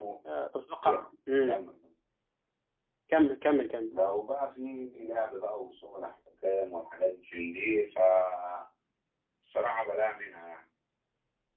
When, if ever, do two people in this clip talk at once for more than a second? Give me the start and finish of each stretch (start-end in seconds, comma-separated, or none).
none